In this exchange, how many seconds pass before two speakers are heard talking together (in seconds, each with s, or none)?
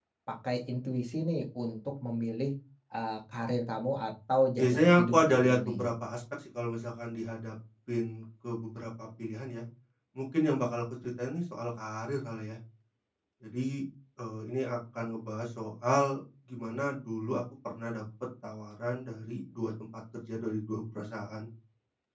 4.6 s